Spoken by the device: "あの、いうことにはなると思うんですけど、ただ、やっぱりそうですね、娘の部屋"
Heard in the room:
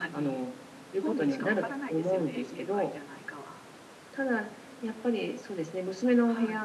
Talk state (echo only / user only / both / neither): both